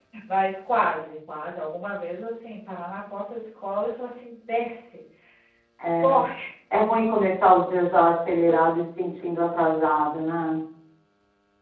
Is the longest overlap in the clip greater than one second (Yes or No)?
No